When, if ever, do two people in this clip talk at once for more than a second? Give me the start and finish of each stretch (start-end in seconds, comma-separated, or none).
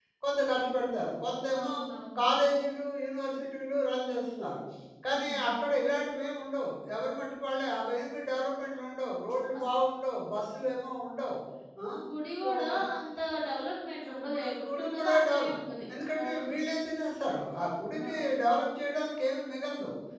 14.1-15.6